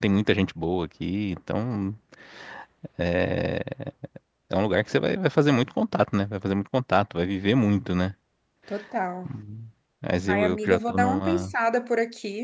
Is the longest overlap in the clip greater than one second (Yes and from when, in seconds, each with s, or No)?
Yes, from 10.3 s